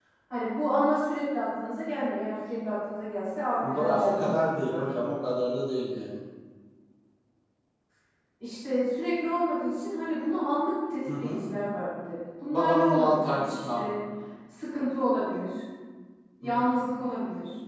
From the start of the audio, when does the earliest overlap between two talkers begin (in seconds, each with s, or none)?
3.7 s